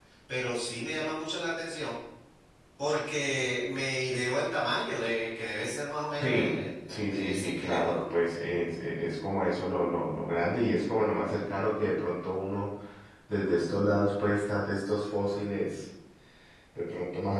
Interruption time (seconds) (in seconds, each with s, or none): 6.2 s